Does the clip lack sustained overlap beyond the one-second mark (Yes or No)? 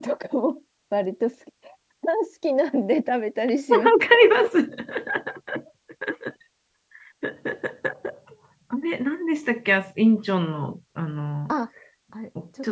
Yes